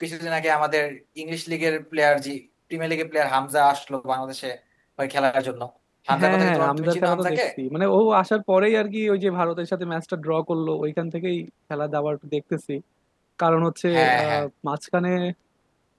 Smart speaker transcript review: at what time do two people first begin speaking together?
6.2 s

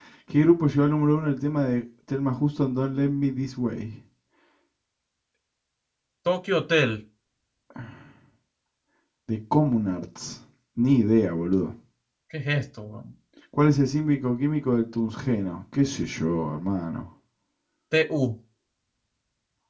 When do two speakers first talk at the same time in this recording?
none

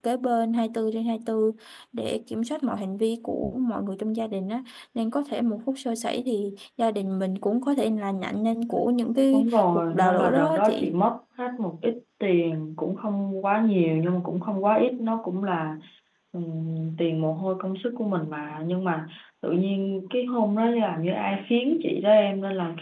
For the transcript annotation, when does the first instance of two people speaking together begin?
9.3 s

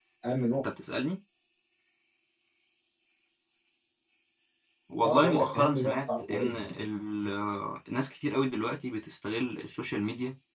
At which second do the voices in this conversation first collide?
5.0 s

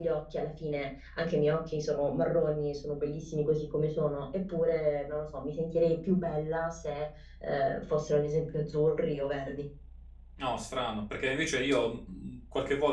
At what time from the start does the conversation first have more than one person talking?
none

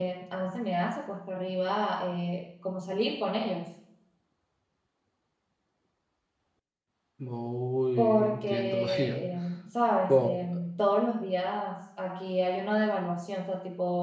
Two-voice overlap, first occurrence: 8.0 s

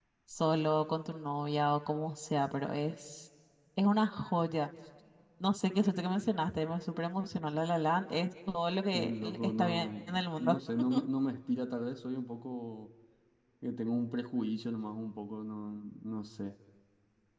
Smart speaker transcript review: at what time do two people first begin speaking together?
8.9 s

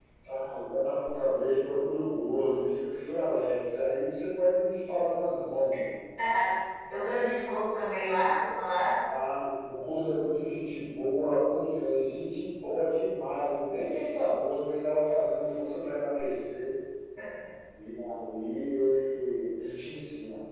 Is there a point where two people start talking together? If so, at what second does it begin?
none

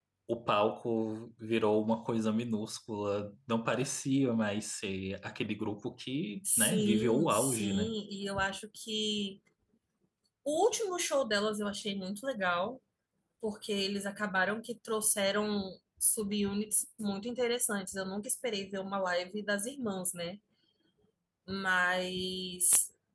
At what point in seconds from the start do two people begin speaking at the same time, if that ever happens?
6.4 s

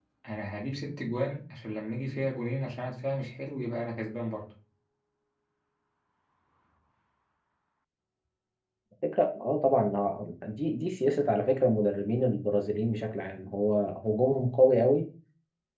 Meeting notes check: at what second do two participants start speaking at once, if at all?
none

